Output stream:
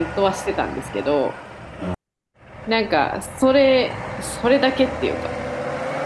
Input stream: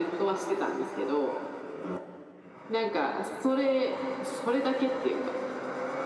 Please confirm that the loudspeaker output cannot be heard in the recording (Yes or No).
No